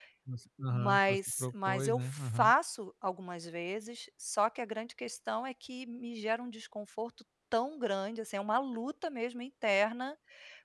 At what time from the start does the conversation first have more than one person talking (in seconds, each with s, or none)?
0.7 s